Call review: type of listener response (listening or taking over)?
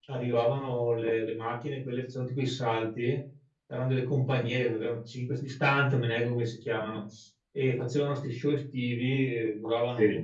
listening